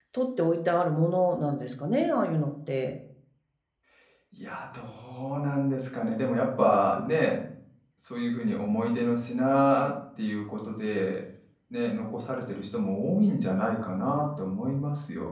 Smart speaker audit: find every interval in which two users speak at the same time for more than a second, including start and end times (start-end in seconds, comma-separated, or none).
none